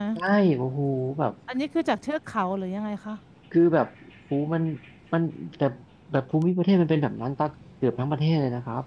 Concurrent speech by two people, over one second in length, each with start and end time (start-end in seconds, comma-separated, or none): none